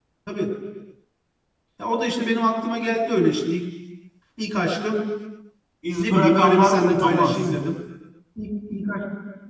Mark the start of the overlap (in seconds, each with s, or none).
6.0 s